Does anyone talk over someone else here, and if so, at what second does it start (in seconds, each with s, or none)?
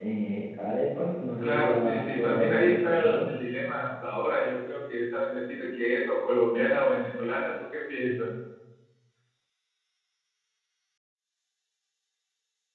1.4 s